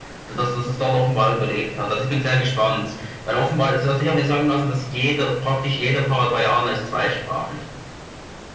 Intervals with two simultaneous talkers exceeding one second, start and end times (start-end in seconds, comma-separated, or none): none